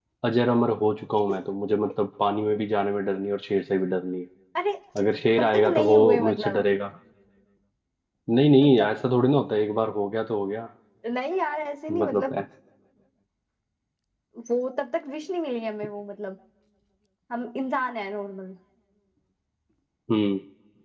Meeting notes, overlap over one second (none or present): present